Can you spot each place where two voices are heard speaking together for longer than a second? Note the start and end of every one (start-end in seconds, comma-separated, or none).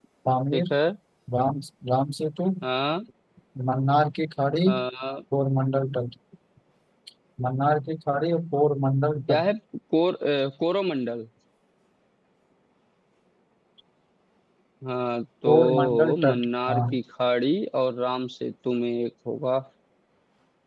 15.5-16.8